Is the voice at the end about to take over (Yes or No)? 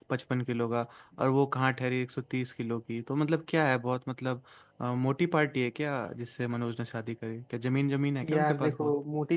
Yes